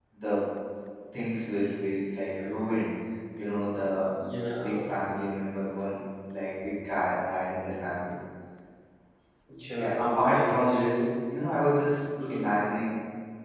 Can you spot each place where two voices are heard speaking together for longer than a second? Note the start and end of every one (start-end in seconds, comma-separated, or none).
9.8-11.1